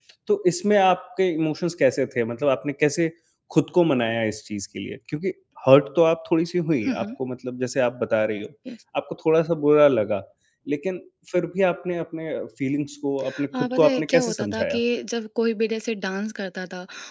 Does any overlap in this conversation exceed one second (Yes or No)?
Yes